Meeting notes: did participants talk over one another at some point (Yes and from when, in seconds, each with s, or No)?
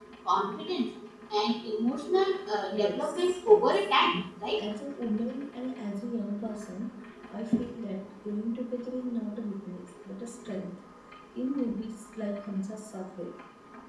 Yes, from 2.7 s